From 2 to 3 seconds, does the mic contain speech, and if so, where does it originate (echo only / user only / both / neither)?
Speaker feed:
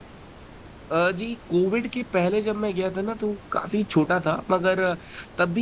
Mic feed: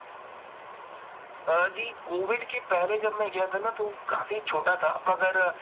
echo only